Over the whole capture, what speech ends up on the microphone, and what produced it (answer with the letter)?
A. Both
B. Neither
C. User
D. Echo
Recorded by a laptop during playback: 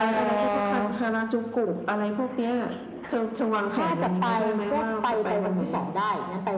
D